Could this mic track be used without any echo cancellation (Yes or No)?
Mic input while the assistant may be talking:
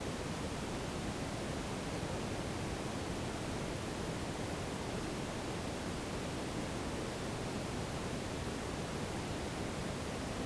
Yes